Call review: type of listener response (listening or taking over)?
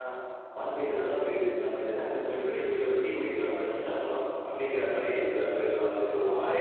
taking over